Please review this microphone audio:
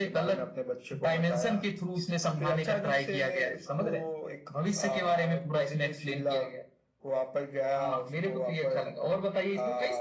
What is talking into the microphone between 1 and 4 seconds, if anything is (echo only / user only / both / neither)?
echo only